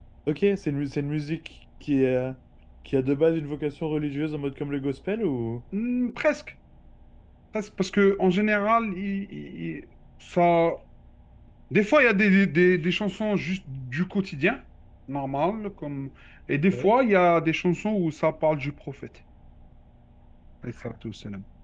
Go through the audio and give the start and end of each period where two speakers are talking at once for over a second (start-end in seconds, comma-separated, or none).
none